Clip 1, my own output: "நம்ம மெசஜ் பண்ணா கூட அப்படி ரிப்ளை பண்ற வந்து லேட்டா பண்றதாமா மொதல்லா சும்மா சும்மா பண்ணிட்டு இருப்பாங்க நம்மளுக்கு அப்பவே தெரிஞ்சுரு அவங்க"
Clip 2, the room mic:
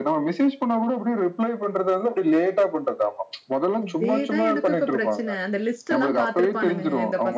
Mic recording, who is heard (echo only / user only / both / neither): both